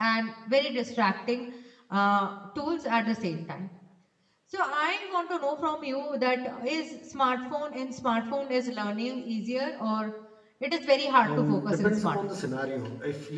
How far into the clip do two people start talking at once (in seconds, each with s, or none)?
11.2 s